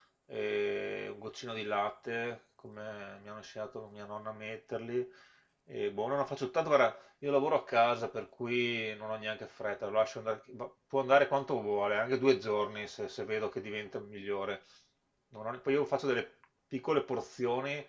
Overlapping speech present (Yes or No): No